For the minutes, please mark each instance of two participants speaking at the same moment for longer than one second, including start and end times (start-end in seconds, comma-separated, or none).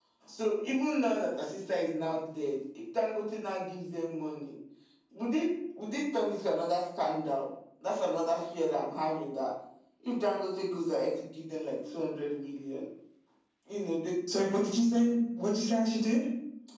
none